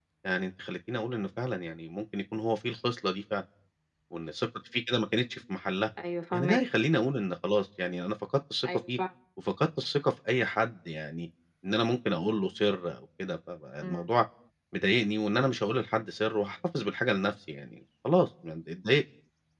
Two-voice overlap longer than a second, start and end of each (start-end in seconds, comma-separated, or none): none